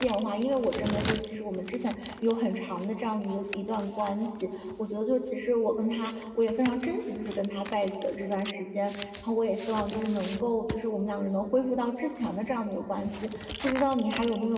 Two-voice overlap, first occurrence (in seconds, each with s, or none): none